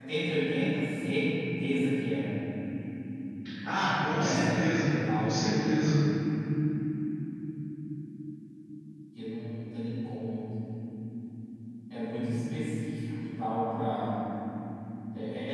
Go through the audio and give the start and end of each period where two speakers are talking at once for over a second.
4.2-5.4

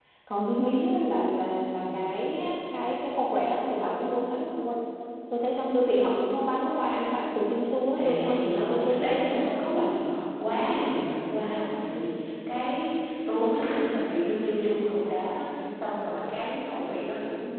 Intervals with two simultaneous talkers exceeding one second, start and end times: 8.0-9.9

